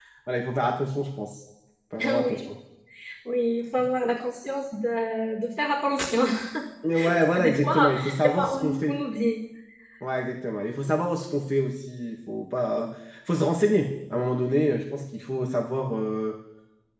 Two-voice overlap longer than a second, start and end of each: 7.0-9.0

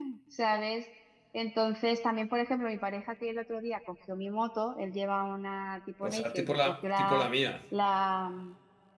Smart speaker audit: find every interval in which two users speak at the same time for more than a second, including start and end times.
6.0-7.3

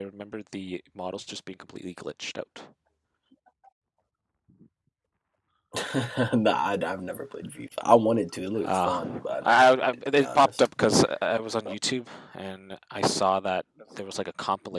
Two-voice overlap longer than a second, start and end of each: 8.6-10.7

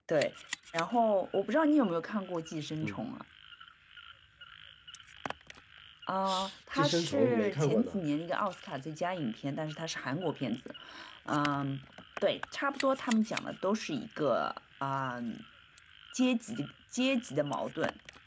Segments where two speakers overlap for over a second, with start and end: 6.7-8.0

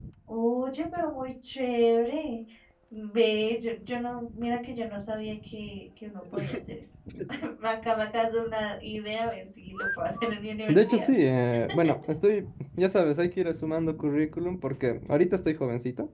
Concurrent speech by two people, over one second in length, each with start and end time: none

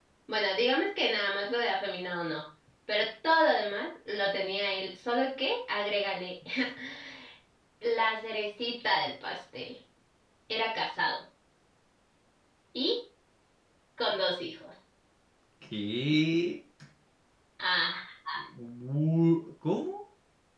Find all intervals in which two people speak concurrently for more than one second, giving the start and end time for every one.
none

